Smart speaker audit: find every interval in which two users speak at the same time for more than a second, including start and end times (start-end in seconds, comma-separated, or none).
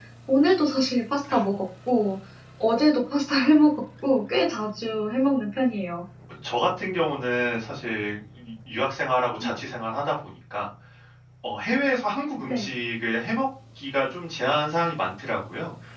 none